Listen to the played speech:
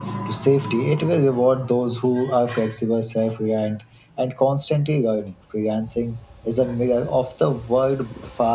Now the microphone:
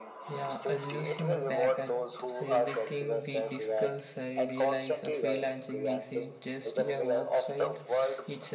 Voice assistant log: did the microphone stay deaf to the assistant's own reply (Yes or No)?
No